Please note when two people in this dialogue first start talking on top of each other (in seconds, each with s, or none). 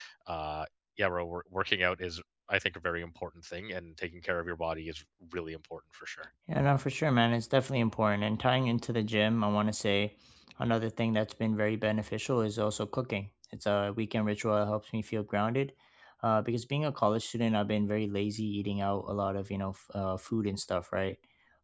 none